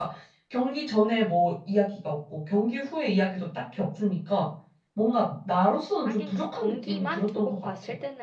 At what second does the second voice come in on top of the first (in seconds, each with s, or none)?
6.0 s